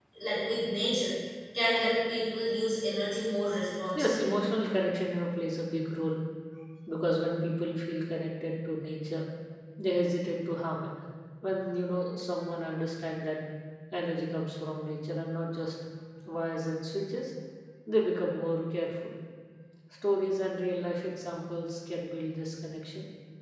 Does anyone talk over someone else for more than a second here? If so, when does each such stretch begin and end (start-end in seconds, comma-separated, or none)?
none